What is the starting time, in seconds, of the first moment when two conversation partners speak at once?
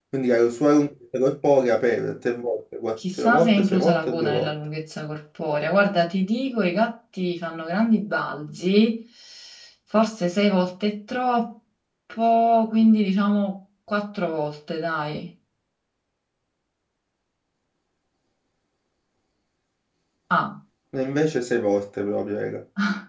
3.2 s

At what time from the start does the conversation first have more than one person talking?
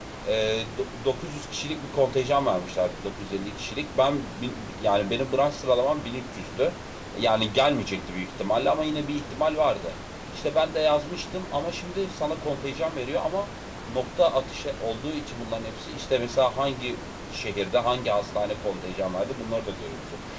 none

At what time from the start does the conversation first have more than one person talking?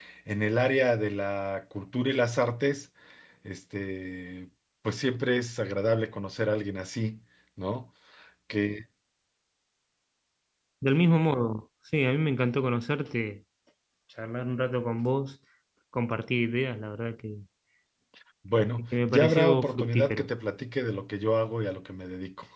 18.9 s

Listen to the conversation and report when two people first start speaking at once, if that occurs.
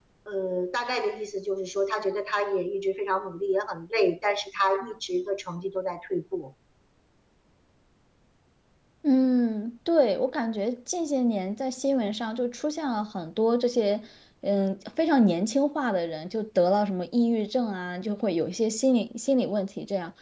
none

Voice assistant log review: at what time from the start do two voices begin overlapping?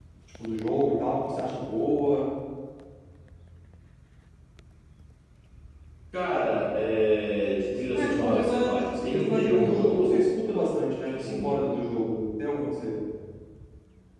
8.0 s

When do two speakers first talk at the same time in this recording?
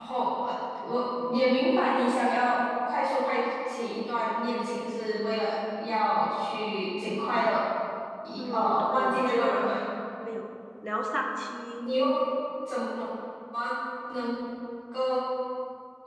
8.4 s

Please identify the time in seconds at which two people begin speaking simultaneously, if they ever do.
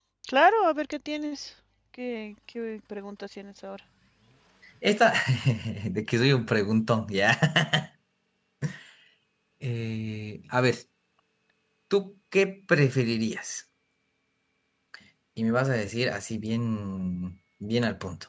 none

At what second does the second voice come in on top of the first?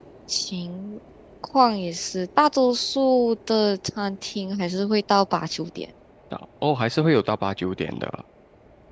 none

